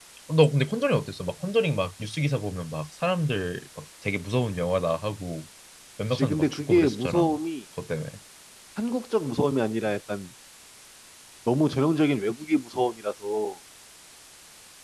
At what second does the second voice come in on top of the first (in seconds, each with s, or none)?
6.1 s